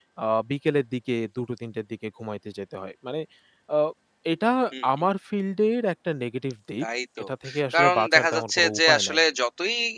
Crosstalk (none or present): present